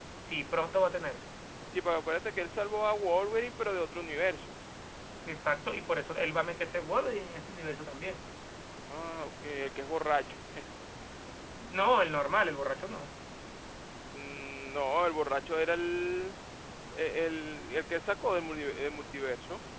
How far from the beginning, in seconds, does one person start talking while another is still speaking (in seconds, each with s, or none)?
none